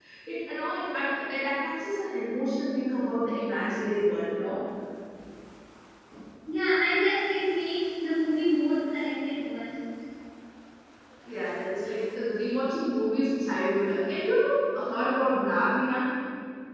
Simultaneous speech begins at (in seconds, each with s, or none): none